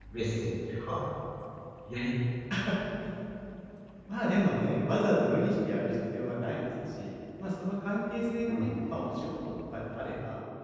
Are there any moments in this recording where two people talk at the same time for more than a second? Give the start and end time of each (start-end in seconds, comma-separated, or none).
none